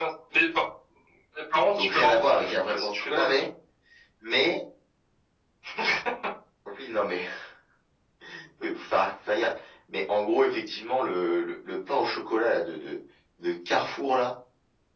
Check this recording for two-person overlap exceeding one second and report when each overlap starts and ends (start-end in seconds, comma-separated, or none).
1.8-3.5